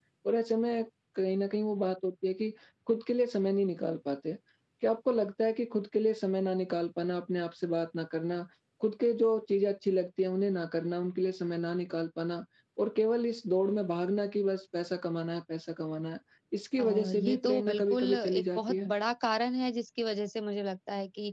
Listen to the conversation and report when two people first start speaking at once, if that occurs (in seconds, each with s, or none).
16.8 s